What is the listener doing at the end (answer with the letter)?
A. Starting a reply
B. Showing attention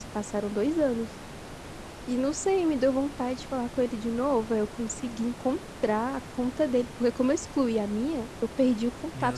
B